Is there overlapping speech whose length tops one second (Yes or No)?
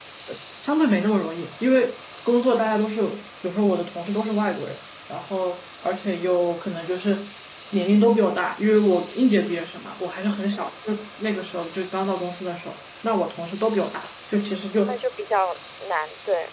No